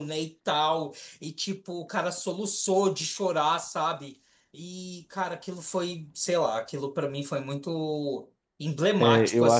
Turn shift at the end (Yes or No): Yes